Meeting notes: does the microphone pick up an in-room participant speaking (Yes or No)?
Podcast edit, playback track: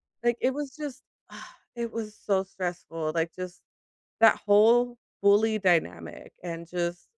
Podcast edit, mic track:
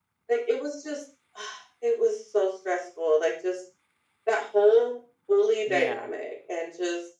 Yes